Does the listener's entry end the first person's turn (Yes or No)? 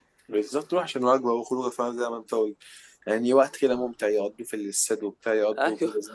Yes